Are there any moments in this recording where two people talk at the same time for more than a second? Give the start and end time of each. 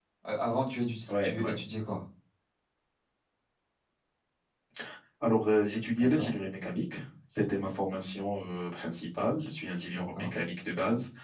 none

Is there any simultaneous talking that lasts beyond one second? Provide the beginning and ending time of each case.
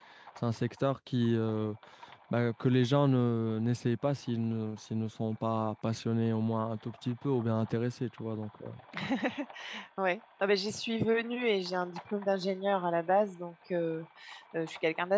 none

